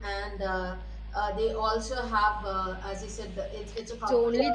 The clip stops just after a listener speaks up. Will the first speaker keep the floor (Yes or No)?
No